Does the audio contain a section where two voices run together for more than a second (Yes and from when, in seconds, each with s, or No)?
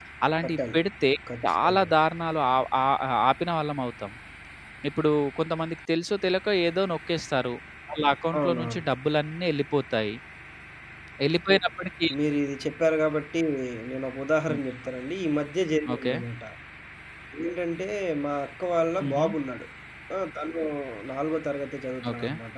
No